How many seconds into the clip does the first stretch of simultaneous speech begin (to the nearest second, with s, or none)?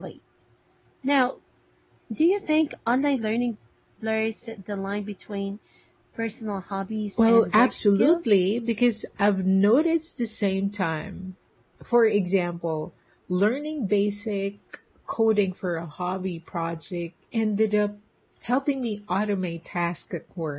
7 s